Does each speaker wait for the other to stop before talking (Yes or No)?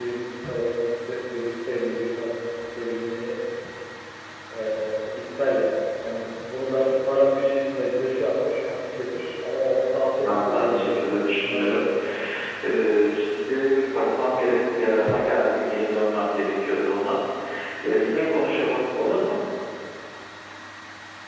No